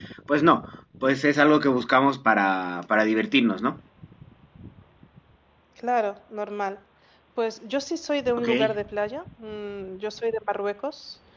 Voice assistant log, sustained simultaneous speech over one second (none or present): none